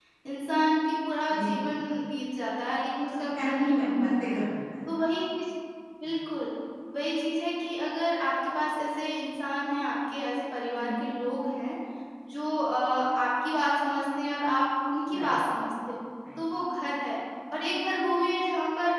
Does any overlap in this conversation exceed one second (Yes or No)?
Yes